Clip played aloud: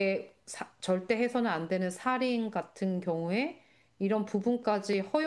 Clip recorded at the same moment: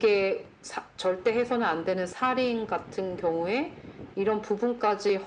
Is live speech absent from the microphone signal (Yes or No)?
Yes